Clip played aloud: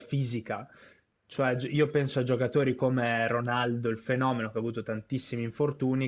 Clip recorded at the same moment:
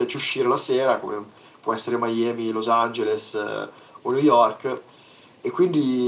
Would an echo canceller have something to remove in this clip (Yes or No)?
No